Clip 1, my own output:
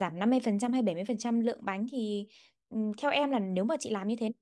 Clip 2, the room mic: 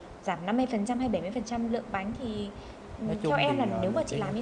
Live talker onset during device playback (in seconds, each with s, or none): 3.0 s